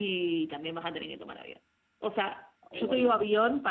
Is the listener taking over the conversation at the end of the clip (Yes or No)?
No